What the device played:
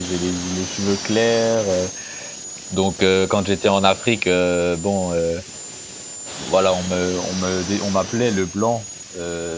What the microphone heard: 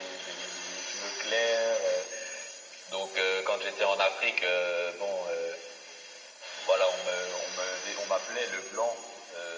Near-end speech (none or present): none